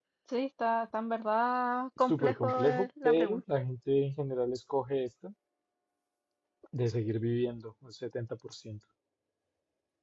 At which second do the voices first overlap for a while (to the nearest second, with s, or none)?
2 s